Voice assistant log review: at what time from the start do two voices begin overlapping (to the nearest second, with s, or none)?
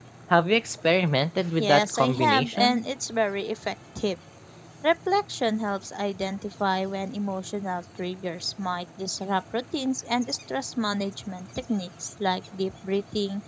2 s